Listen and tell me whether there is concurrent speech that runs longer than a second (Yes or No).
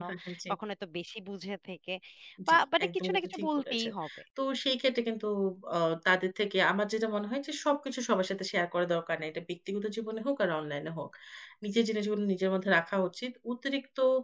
Yes